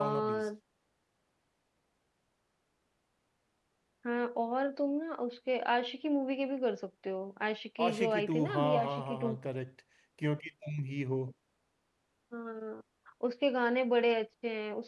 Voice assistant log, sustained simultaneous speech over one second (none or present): present